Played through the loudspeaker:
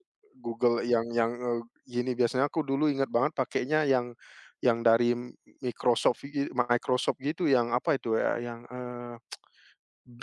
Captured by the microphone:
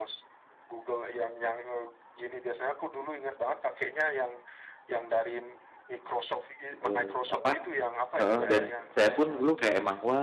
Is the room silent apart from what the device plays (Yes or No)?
No